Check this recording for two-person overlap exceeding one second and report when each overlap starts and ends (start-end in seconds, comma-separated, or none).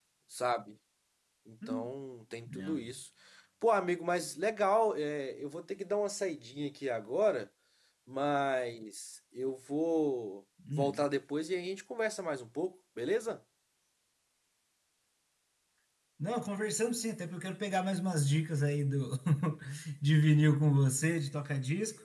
none